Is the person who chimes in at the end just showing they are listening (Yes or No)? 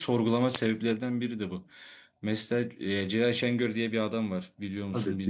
No